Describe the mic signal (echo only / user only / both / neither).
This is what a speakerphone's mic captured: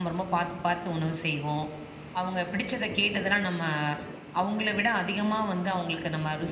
user only